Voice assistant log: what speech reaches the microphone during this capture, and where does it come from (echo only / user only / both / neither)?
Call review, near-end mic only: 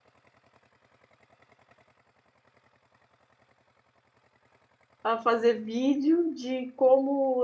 user only